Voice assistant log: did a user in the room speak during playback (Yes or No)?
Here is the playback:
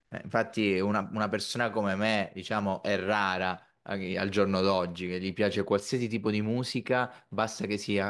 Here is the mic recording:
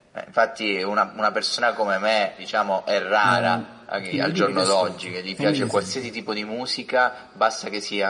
Yes